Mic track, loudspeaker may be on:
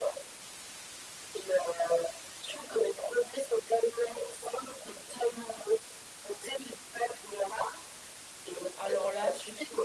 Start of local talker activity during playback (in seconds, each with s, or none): 8.8 s